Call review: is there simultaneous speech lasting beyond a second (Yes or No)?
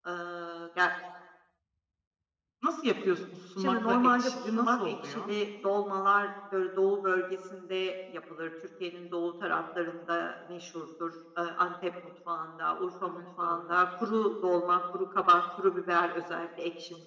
Yes